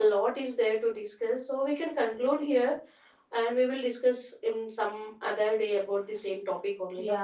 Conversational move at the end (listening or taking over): taking over